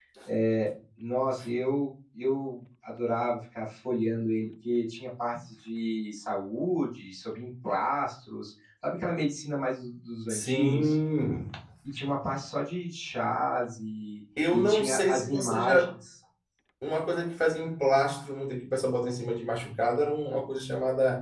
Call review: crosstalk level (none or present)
present